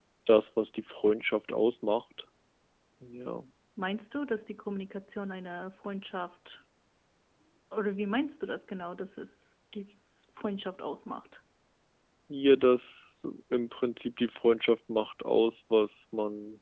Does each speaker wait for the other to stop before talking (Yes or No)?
Yes